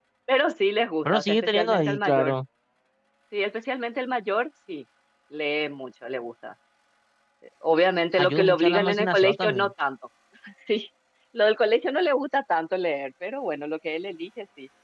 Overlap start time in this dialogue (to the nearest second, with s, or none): 1 s